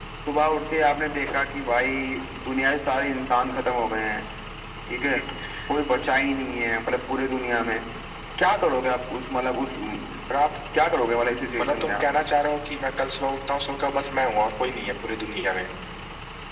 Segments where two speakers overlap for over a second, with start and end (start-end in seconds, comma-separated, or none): none